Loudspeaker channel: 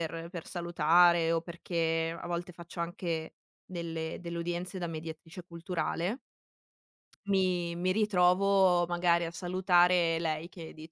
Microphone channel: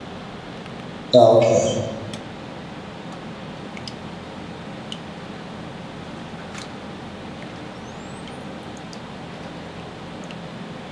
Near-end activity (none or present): present